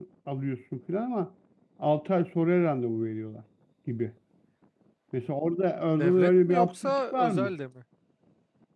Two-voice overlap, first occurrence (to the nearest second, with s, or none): 6 s